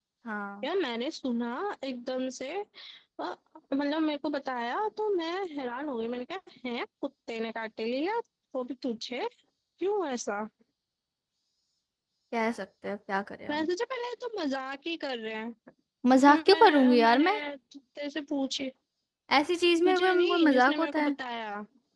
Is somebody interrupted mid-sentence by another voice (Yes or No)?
Yes